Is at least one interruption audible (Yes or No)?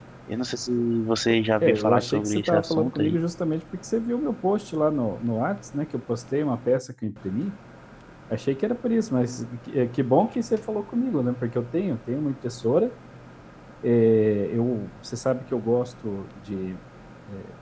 Yes